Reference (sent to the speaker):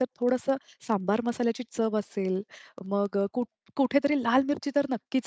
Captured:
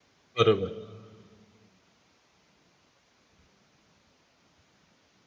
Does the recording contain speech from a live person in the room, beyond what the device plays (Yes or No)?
Yes